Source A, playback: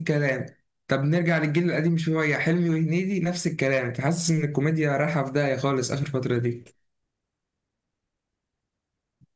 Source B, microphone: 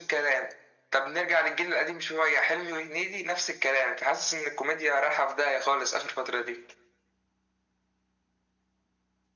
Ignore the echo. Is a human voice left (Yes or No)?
No